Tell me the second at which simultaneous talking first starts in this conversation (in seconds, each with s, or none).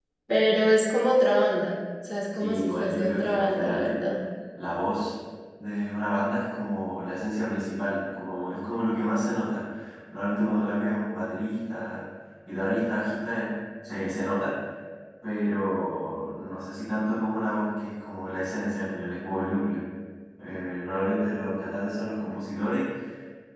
2.4 s